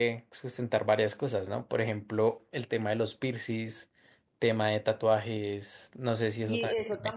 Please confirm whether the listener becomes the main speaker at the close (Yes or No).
Yes